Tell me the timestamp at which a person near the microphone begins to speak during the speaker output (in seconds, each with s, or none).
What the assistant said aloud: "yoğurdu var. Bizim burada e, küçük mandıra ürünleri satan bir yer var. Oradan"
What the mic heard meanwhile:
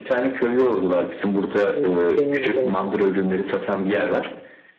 1.7 s